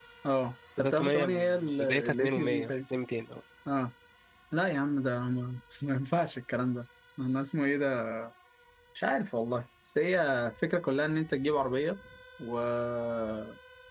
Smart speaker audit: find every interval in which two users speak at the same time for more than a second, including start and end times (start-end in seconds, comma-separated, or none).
0.8-2.7